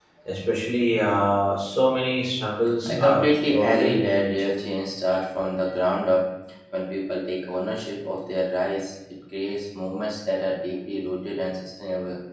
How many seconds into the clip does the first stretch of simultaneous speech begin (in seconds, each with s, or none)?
2.9 s